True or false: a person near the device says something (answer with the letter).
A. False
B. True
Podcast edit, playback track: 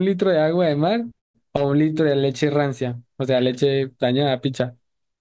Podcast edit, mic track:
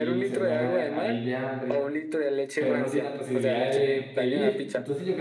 B